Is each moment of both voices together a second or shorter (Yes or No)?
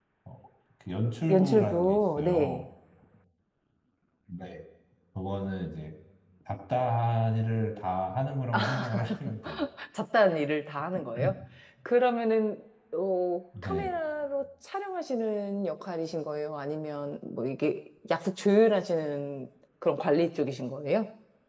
No